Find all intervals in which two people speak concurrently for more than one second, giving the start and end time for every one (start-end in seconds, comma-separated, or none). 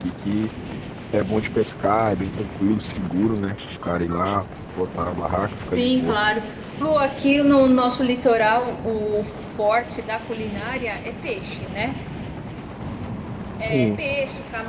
none